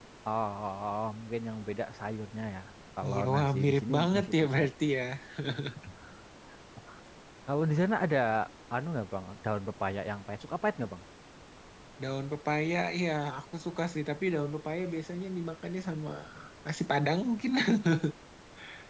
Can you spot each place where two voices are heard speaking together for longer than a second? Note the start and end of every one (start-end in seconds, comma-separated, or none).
3.1-4.6